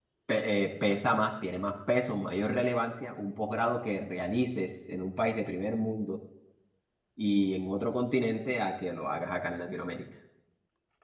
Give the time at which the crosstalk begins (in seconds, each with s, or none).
none